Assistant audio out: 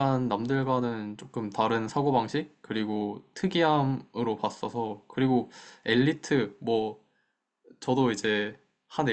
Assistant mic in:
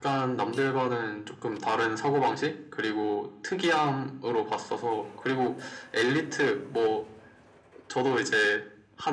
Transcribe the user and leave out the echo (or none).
none